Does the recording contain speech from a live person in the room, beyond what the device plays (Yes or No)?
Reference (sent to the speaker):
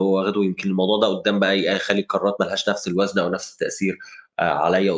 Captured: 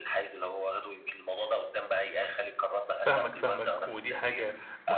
Yes